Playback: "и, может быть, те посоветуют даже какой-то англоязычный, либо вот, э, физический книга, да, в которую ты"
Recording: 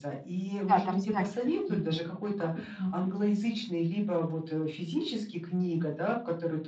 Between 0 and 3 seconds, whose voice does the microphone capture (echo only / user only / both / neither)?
both